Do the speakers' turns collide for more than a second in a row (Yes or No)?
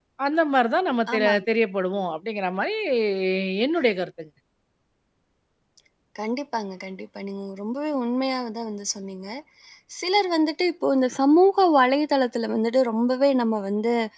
No